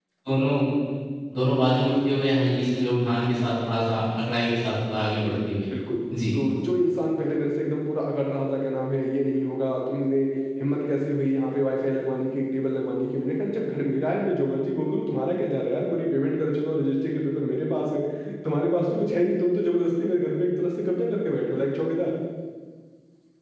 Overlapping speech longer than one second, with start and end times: none

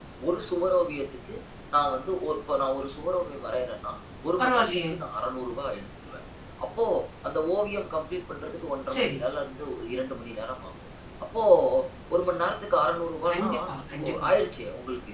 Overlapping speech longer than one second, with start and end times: none

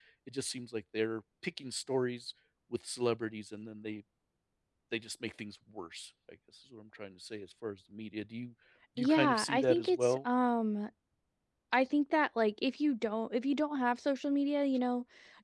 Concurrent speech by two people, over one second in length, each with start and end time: 9.0-10.2

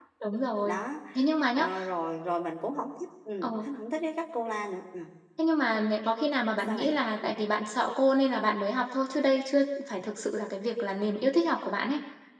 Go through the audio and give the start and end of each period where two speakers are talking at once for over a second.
none

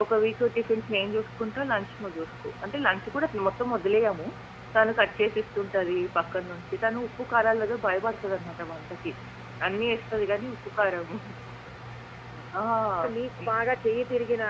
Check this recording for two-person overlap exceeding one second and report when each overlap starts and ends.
none

